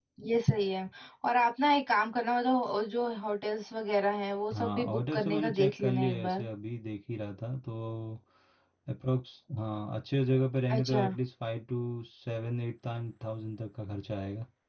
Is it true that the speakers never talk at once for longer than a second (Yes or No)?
No